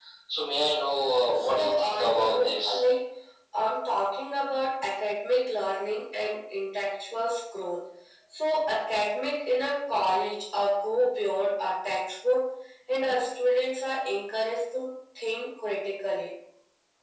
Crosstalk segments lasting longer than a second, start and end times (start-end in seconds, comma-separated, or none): 1.4-2.8